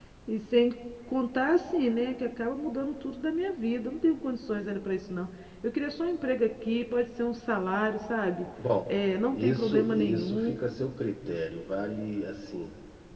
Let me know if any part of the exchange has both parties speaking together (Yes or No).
Yes